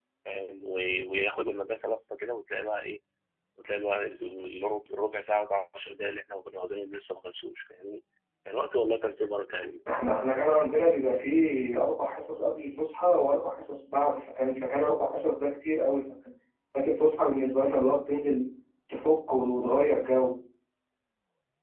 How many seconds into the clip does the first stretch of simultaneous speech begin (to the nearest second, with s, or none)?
none